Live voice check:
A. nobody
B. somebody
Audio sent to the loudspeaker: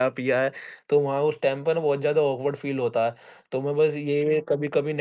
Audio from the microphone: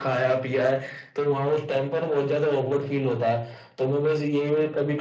A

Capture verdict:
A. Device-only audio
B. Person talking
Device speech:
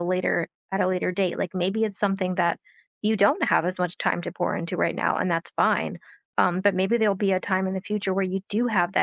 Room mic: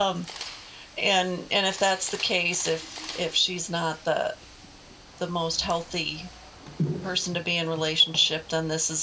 B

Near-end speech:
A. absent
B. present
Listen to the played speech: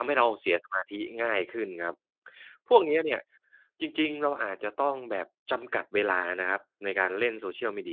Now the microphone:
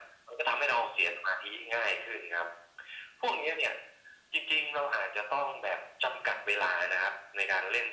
A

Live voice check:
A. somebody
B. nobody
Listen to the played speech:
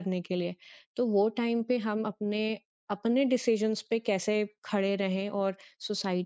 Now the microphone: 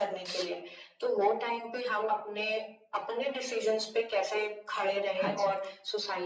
A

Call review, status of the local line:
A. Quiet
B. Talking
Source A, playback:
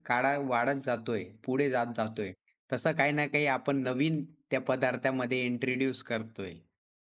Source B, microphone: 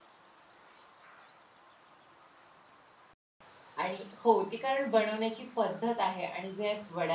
B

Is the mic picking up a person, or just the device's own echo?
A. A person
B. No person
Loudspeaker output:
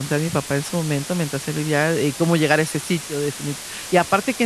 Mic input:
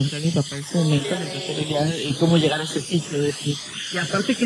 A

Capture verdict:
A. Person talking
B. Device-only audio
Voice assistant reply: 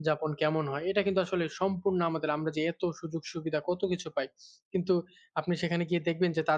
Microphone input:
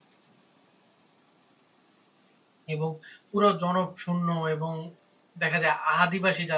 A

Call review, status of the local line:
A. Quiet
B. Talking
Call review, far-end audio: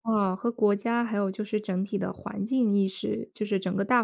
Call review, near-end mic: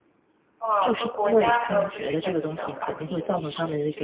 B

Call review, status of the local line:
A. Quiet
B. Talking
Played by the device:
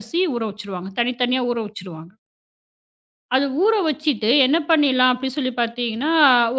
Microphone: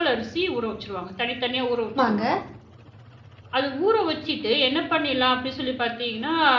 B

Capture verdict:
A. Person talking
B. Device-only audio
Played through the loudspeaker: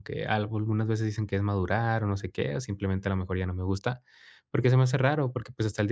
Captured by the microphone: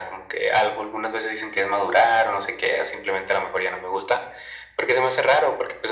B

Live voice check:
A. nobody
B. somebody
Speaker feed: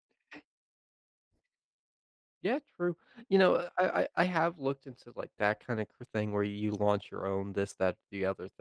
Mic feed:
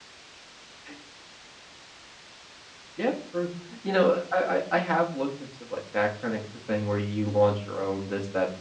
A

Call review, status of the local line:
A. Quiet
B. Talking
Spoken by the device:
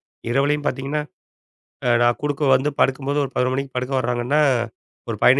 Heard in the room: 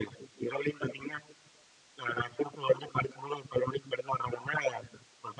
A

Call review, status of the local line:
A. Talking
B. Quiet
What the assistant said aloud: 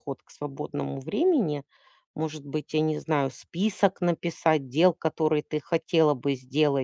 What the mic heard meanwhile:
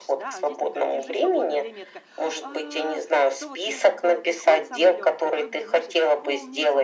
A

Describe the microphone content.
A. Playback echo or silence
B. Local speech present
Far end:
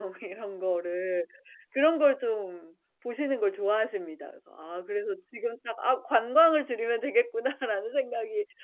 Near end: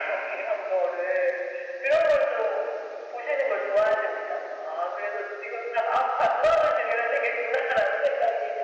A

